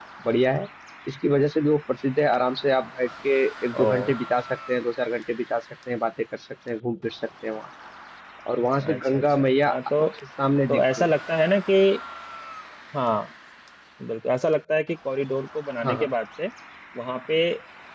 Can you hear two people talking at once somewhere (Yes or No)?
Yes